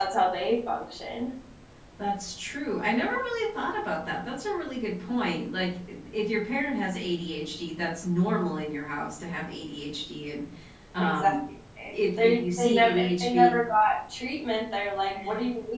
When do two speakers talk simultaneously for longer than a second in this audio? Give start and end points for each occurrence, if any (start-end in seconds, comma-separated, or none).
12.2-13.5